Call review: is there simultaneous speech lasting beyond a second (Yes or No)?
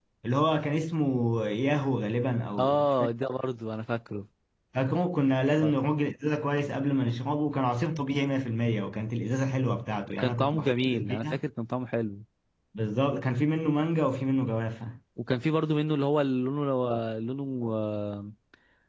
Yes